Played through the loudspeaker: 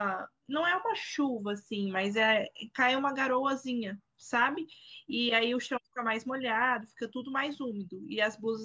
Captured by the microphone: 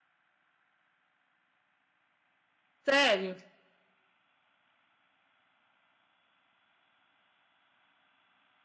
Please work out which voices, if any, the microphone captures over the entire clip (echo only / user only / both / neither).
user only